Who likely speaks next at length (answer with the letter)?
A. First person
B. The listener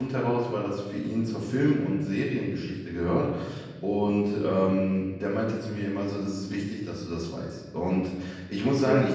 A